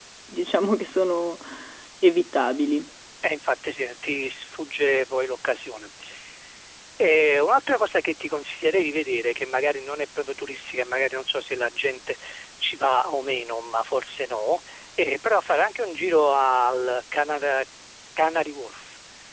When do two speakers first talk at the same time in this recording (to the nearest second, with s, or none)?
none